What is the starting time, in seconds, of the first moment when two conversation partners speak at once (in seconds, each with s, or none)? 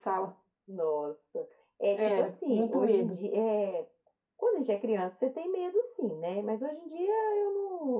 1.9 s